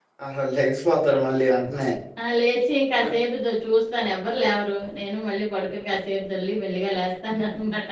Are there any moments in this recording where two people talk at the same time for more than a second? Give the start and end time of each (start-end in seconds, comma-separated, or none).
none